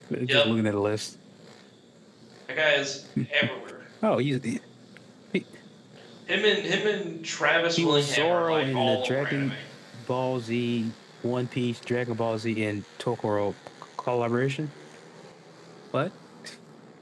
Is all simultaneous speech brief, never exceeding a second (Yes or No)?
No